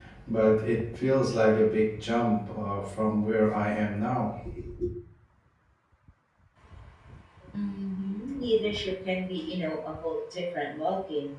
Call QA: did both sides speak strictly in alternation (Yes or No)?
Yes